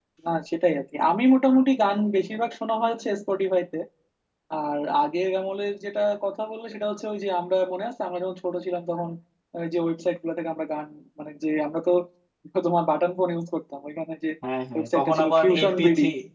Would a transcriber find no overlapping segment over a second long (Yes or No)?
No